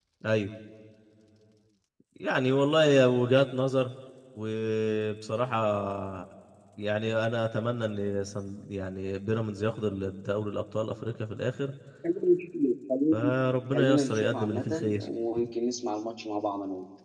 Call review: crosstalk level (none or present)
present